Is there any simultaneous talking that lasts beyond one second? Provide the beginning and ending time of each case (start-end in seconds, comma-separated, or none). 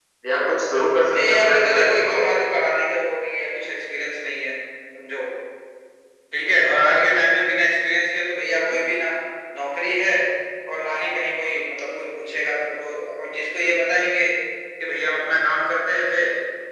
1.2-2.4